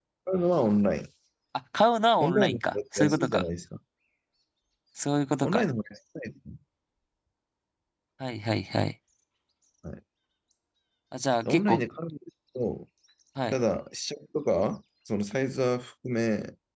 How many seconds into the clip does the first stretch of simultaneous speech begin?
2.2 s

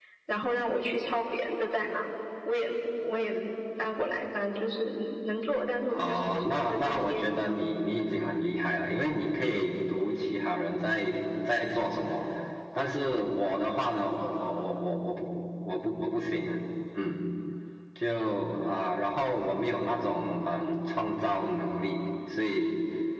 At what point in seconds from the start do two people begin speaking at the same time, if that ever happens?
5.9 s

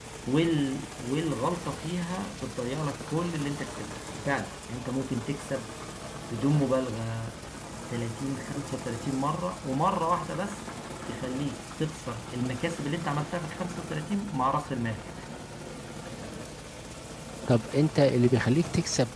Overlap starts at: none

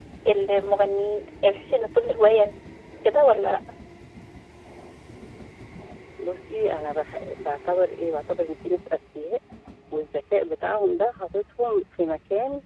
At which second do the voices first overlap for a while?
none

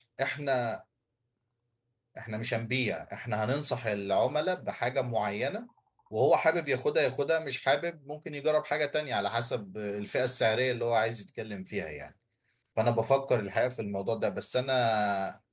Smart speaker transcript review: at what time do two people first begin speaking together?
none

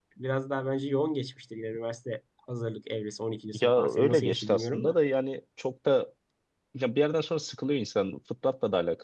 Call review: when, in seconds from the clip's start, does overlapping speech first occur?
3.5 s

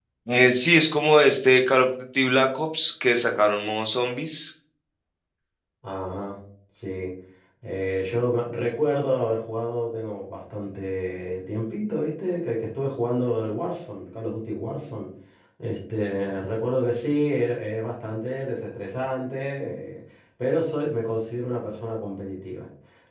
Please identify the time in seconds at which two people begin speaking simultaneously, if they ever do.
none

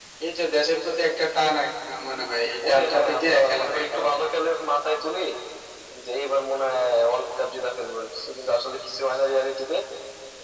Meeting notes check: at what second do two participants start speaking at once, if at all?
2.6 s

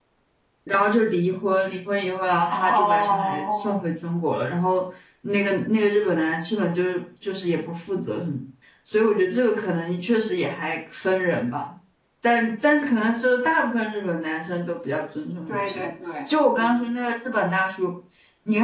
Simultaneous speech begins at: 2.5 s

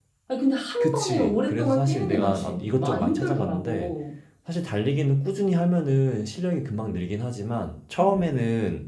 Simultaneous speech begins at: 0.8 s

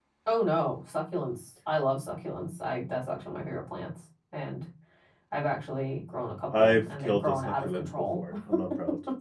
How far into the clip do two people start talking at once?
6.5 s

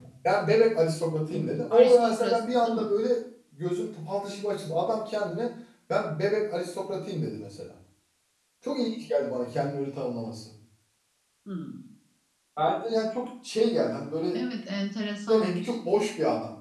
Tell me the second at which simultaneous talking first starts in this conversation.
1.3 s

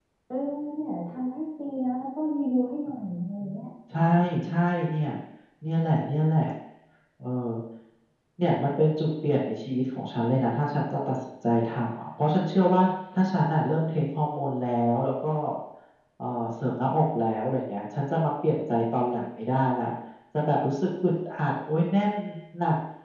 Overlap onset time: none

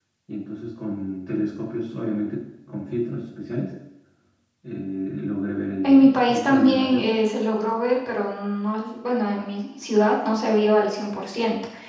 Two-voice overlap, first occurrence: 5.8 s

